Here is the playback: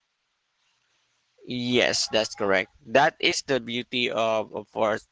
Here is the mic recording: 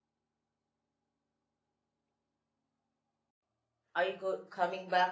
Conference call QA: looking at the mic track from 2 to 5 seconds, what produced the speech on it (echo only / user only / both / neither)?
user only